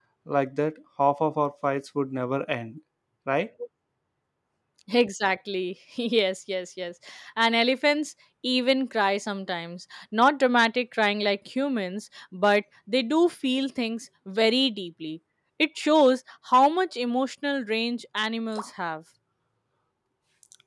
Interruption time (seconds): none

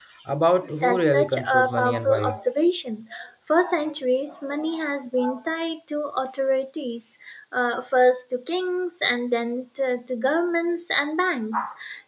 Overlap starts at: 1 s

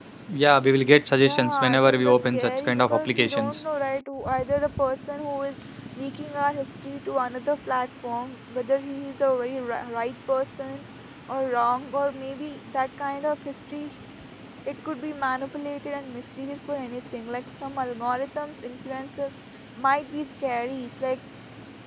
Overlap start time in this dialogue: 1 s

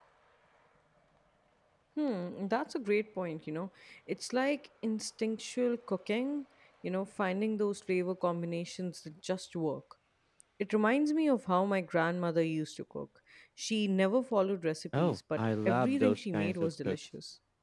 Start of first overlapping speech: 15 s

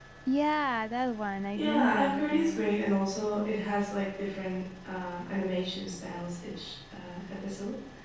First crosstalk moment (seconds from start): 2 s

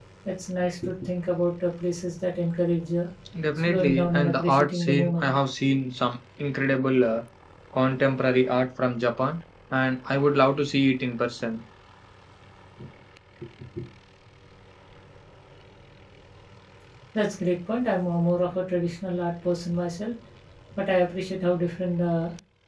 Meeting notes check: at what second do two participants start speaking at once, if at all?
4 s

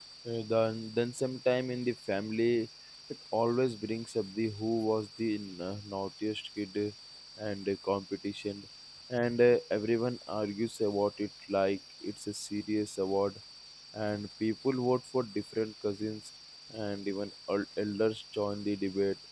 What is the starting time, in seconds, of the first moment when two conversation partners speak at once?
none

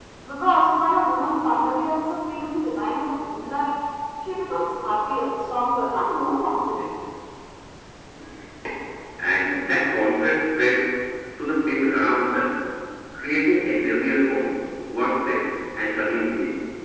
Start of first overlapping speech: none

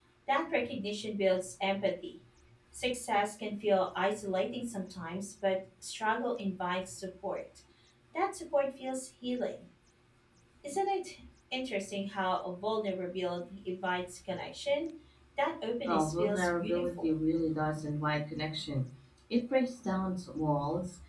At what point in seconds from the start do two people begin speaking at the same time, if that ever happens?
16 s

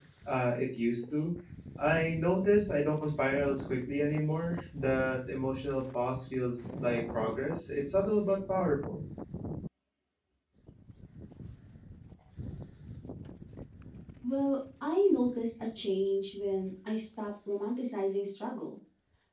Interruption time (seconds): none

